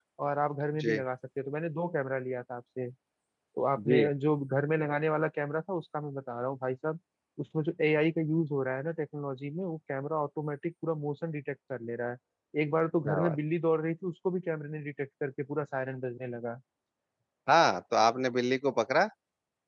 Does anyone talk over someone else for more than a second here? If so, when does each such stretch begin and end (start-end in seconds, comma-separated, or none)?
none